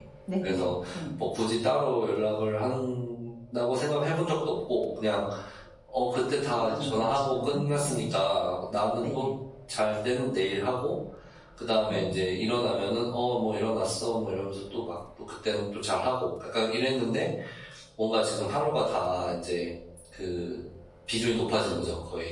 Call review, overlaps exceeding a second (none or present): present